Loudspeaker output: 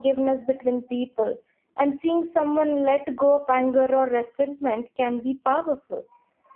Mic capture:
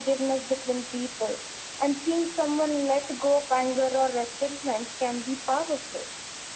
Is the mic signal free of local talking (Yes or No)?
Yes